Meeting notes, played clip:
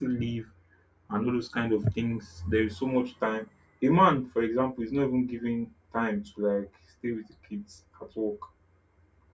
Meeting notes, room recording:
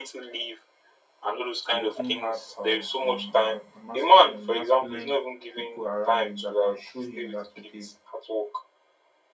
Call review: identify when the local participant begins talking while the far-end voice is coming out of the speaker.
1.7 s

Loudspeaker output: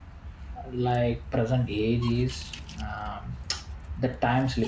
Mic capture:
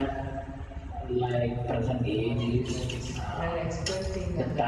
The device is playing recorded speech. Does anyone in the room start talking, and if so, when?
2.2 s

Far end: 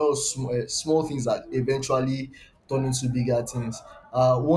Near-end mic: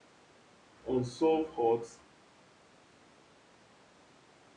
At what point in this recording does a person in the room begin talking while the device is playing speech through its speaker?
0.9 s

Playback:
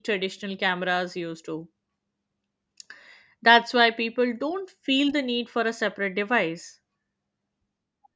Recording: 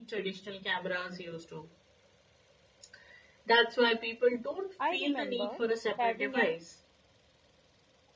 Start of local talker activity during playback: 4.8 s

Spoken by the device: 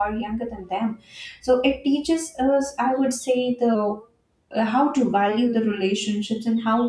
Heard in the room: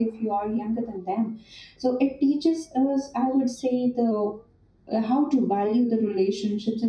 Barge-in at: none

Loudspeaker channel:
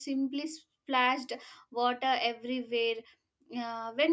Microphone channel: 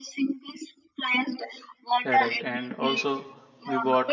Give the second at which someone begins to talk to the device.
2.0 s

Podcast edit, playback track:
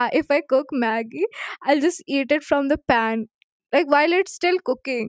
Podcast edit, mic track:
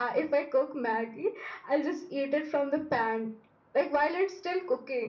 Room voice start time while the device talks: none

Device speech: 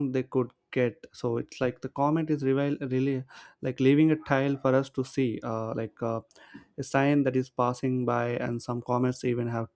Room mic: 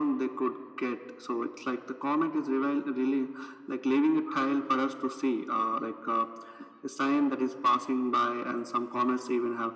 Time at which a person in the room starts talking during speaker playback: none

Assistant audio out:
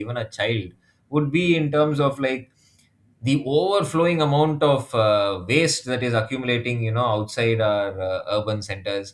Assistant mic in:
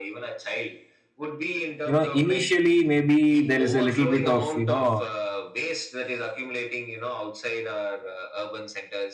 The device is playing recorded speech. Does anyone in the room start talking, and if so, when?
1.8 s

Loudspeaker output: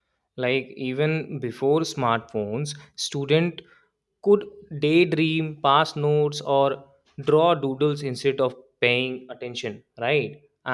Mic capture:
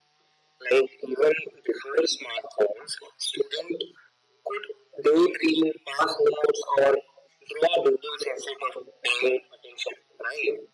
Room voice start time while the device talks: none

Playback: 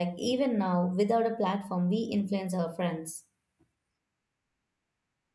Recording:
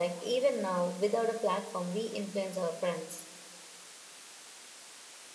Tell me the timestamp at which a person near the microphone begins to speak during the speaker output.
none

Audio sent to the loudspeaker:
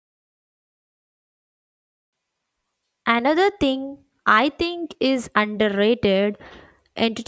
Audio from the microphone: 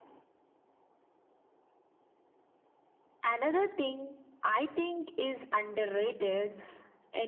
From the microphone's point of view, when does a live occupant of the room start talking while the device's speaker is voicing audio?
none

